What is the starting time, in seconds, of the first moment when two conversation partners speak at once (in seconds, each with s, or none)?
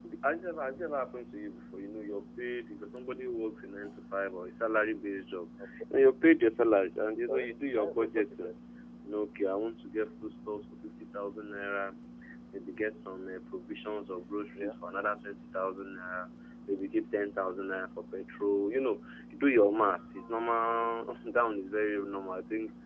7.3 s